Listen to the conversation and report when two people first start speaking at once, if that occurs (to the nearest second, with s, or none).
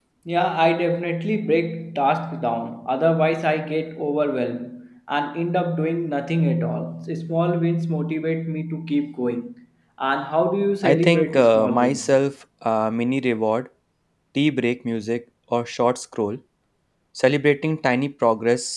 11 s